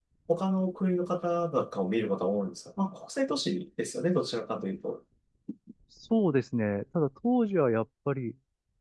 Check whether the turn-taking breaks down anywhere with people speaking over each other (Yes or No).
No